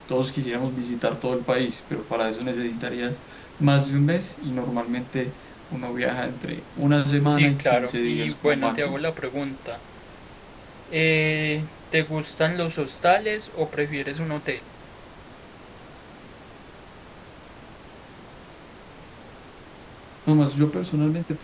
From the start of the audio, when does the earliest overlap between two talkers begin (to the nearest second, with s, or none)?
7 s